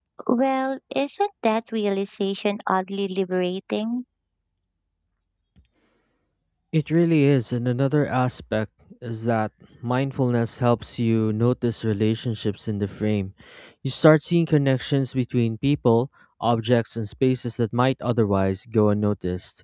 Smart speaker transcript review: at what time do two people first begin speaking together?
none

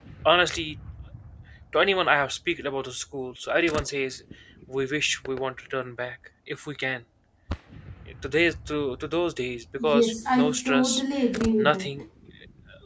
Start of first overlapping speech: 9.8 s

